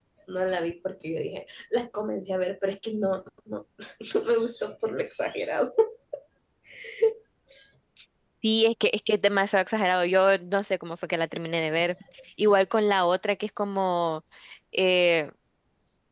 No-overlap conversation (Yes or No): Yes